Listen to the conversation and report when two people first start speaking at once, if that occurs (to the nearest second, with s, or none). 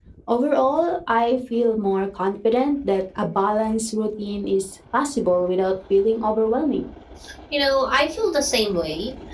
none